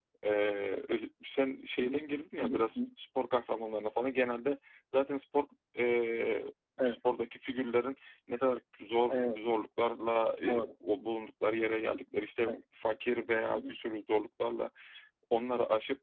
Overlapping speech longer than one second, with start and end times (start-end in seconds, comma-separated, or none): none